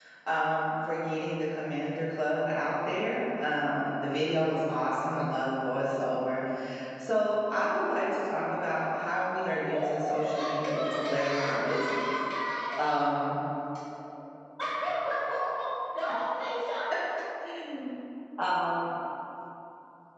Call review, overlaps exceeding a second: present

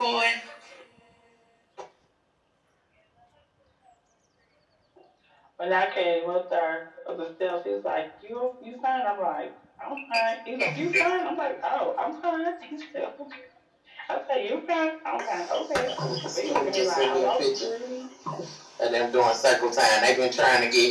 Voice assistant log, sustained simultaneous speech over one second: present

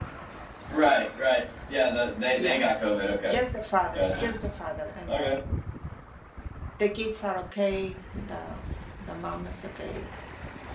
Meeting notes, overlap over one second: none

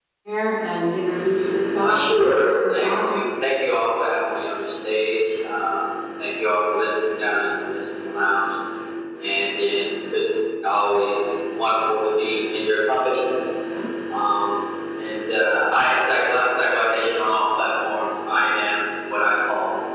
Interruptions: present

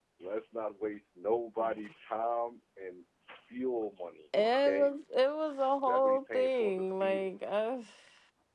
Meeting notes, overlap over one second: present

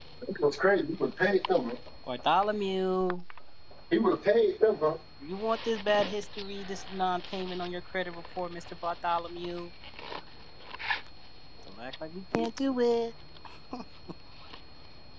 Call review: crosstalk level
none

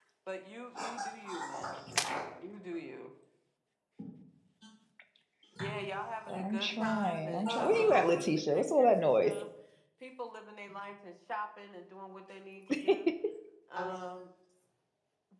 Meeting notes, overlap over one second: present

